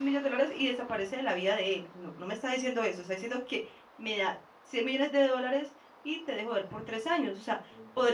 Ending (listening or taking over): listening